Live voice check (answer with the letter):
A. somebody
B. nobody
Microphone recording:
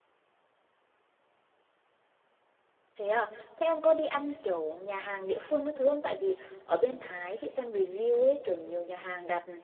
A